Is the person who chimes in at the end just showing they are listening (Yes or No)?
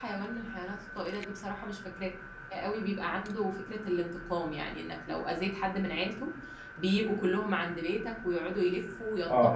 No